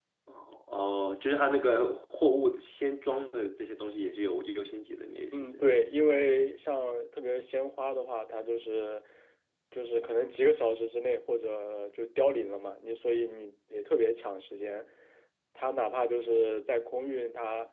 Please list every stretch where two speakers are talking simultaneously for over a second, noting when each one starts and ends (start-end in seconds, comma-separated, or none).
none